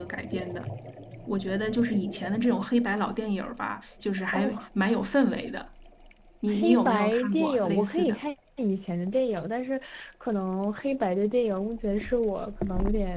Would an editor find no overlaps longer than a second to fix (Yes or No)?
No